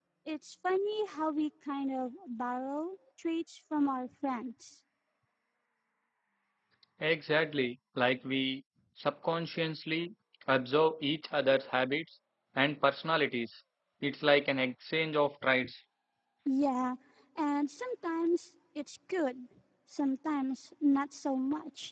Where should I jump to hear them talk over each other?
none

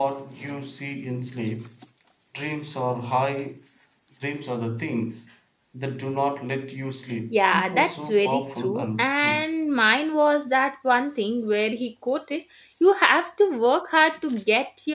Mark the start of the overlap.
7.3 s

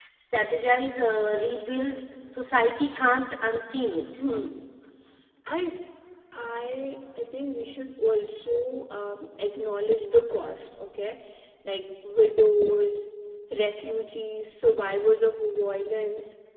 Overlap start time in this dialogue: none

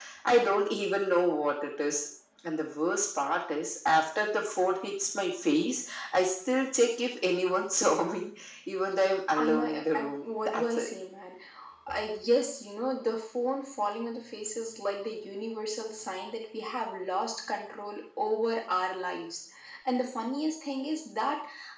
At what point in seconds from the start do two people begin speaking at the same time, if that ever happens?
9.4 s

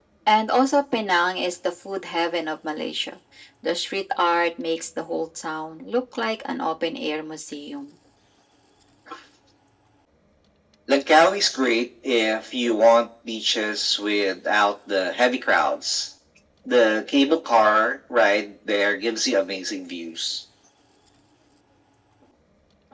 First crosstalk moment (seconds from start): none

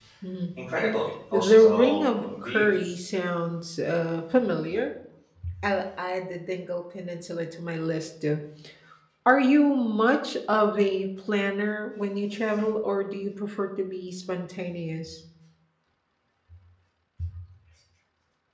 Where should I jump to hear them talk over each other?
1.3 s

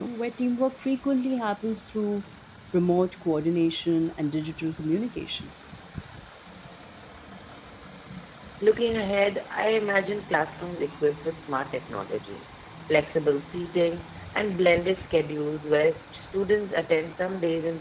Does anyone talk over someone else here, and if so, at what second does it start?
none

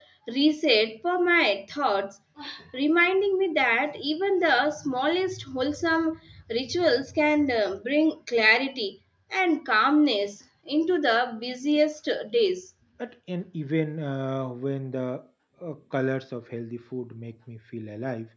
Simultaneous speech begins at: none

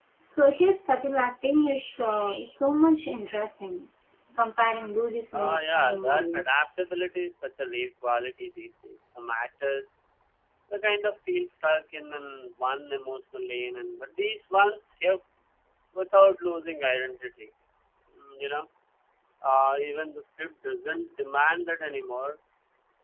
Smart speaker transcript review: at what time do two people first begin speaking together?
5.3 s

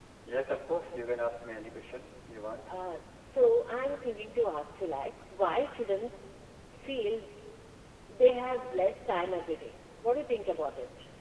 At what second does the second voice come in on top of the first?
none

